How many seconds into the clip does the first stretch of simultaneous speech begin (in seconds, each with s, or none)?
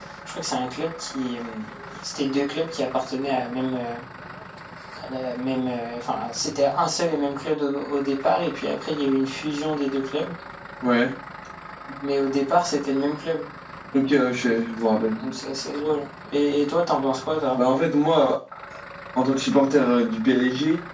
none